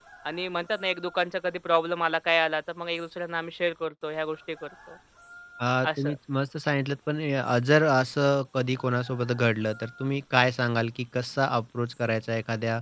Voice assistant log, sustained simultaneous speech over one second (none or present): none